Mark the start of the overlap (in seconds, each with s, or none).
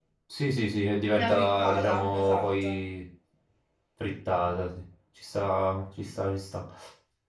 1.1 s